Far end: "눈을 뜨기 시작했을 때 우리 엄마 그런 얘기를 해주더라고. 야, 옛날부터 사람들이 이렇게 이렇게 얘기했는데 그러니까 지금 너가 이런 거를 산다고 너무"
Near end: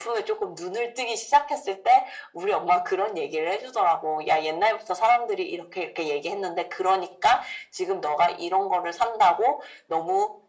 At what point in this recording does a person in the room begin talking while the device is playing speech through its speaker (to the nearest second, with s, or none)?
none